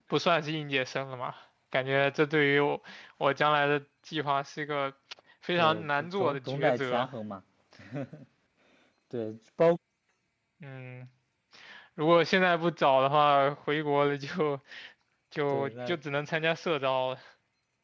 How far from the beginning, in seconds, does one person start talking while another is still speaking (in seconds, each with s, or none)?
5.6 s